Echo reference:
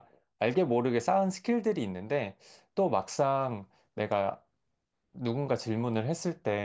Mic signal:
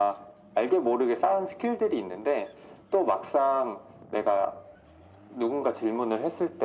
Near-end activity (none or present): none